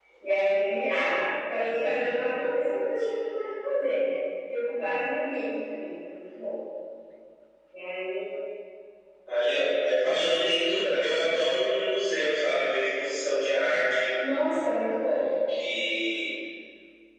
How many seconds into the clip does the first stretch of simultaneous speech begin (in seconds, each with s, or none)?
none